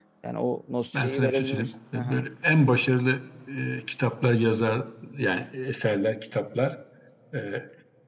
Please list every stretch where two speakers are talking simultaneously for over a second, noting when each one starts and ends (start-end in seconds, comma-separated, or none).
0.9-2.2